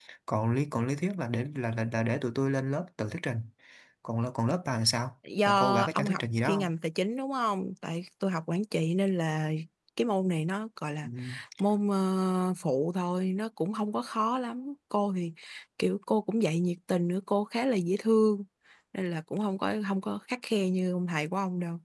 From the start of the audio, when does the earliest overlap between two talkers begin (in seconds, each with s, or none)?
5.5 s